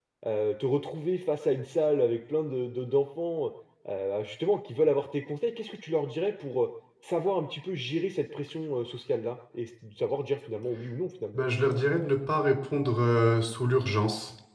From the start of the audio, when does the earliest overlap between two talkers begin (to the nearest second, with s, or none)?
none